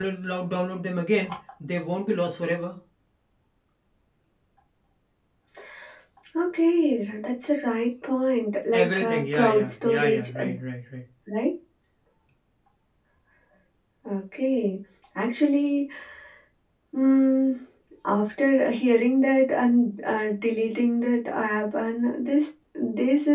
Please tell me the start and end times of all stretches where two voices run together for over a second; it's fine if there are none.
8.7-10.4

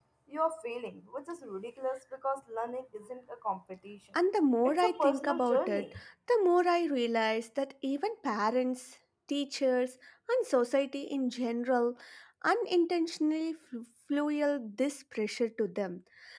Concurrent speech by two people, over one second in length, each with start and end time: 4.6-5.8

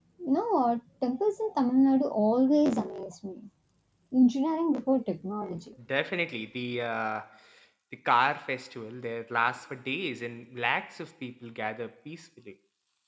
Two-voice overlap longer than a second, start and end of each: none

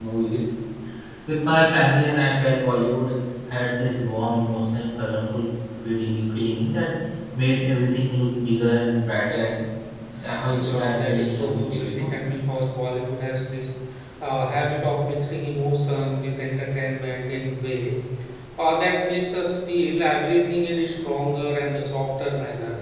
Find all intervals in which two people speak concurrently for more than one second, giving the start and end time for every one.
10.6-12.1

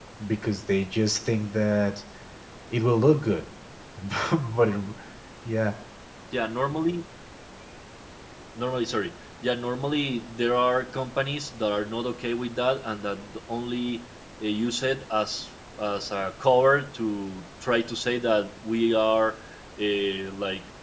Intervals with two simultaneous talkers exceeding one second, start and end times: none

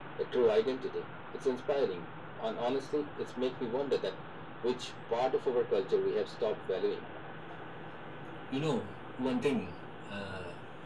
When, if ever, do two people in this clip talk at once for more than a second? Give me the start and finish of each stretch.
none

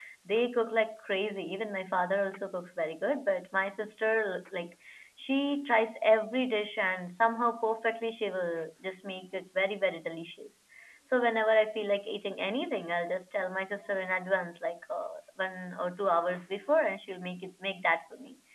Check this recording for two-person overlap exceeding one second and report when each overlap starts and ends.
none

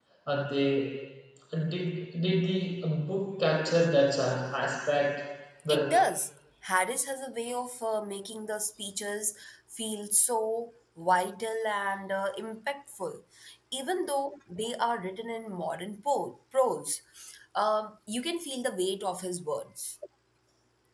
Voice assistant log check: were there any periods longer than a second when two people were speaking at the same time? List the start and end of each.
none

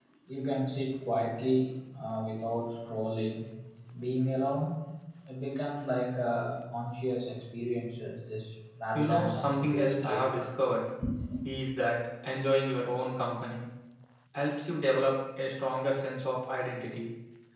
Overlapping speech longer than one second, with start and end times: 8.9-10.5

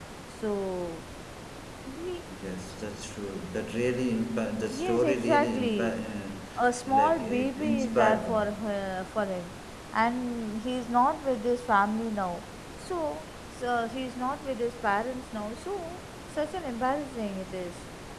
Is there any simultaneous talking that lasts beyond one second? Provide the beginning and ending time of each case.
4.7-6.0, 6.8-8.4

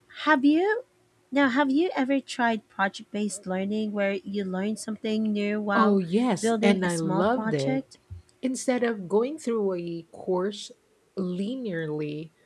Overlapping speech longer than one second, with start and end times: 6.4-7.8

